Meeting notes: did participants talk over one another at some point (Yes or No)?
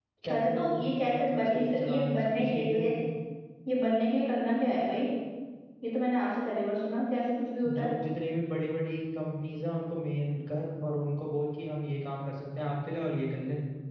Yes